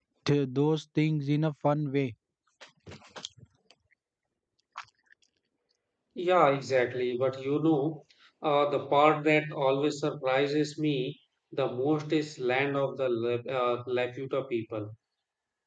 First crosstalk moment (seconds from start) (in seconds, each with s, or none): none